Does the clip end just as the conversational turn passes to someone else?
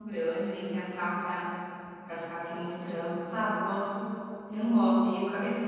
No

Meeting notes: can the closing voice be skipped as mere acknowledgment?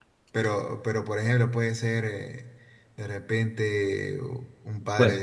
Yes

